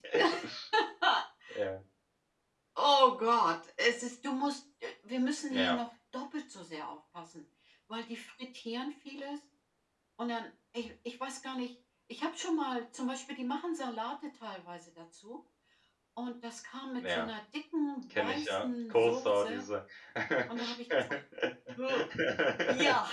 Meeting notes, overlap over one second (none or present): present